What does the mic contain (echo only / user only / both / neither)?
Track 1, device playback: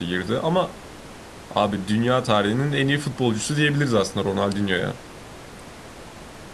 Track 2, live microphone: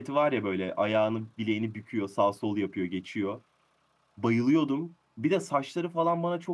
user only